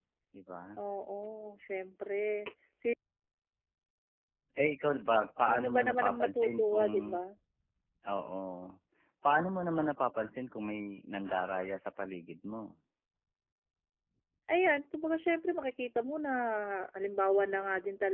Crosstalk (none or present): present